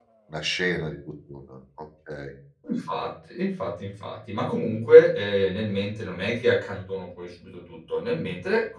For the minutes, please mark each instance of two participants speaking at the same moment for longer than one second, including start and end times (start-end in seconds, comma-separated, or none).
none